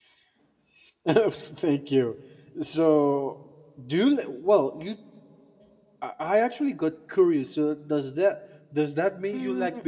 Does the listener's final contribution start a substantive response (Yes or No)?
Yes